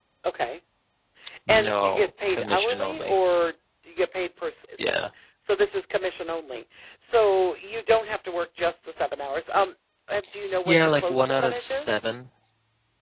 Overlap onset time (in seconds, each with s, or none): 1.5 s